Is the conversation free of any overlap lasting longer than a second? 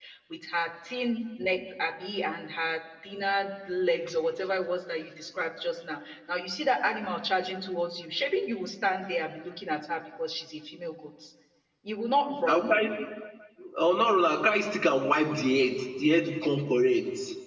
Yes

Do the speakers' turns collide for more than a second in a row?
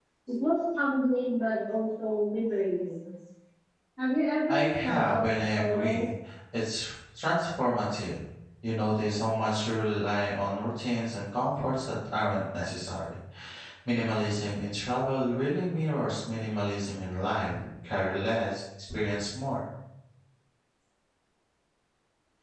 Yes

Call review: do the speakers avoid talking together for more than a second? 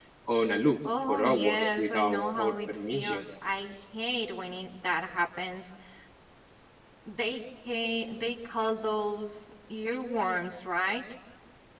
No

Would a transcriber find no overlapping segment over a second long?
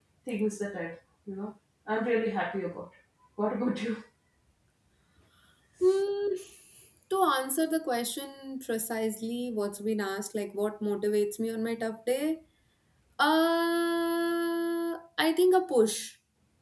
Yes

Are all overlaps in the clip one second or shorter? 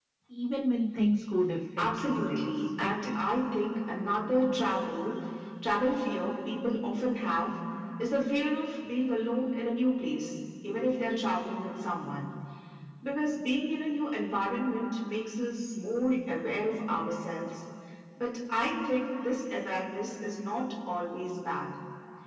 No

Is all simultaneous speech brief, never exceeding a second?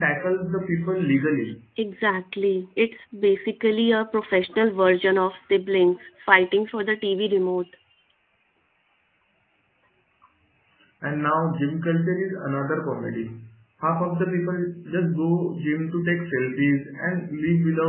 Yes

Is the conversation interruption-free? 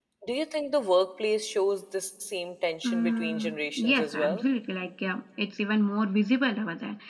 No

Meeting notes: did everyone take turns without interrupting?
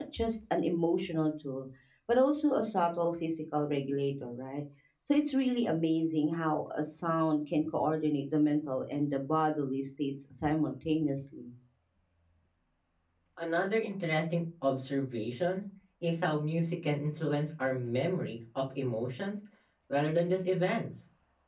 Yes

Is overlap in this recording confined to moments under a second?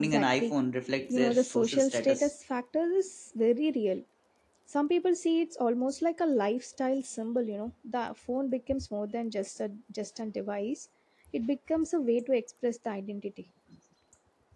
No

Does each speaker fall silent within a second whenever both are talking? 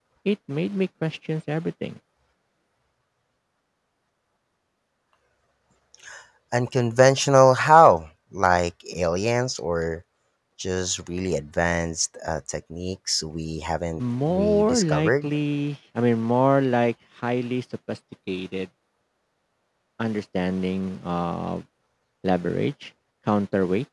No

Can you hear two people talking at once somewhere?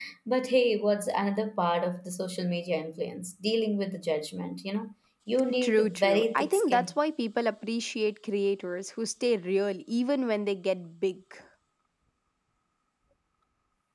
Yes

